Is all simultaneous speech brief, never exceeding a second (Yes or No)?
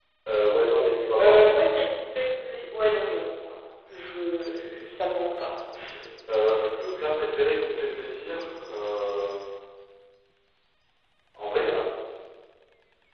Yes